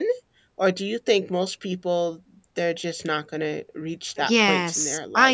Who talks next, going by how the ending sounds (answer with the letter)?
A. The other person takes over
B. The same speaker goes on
A